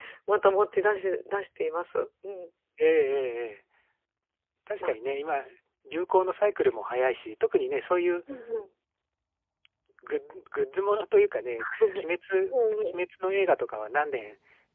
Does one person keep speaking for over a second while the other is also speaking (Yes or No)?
No